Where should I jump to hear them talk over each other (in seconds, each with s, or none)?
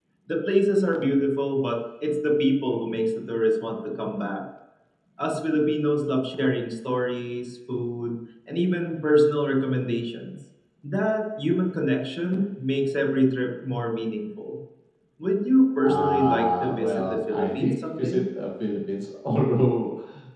15.8 s